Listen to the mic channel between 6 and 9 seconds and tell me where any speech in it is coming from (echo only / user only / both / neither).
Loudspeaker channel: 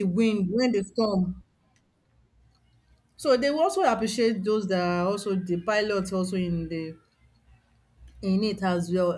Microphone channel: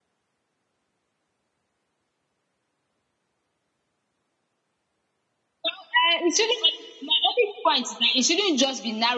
user only